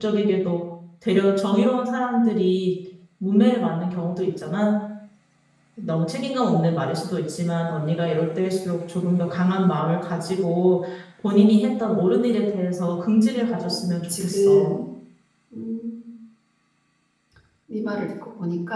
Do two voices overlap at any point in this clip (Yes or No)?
Yes